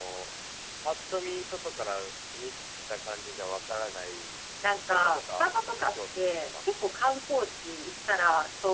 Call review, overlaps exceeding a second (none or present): present